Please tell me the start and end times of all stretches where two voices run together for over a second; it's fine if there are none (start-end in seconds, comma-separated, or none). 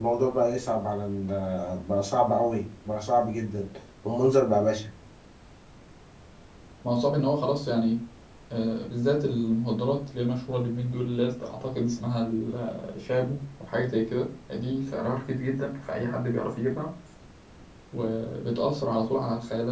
none